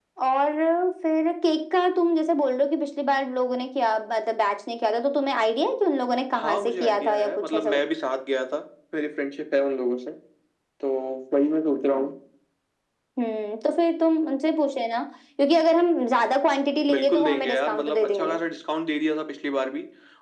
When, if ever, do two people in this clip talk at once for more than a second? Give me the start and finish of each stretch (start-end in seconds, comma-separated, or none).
6.3-7.8, 16.9-18.4